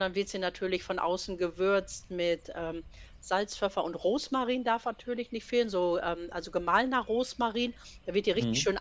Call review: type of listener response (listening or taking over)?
listening